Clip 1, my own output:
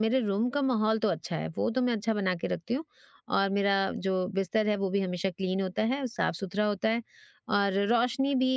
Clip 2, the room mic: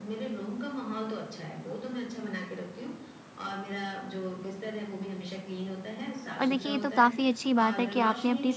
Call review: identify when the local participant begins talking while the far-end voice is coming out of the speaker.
6.4 s

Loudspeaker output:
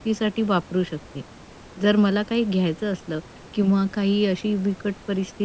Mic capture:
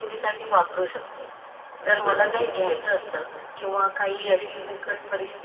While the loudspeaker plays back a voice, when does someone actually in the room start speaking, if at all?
1.8 s

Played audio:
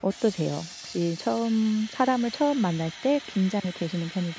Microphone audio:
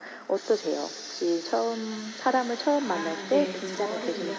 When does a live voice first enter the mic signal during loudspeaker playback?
2.8 s

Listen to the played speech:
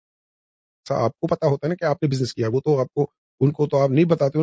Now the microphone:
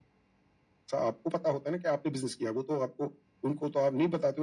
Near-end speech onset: none

